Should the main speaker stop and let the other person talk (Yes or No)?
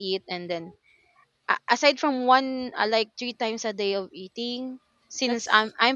No